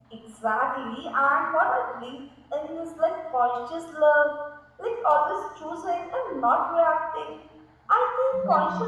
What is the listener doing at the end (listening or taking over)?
listening